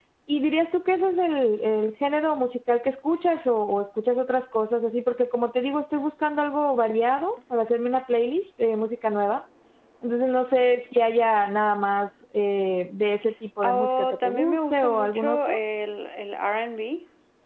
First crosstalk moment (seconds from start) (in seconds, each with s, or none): 13.6 s